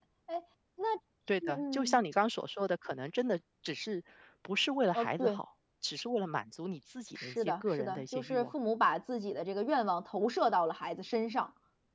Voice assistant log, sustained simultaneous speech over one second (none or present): present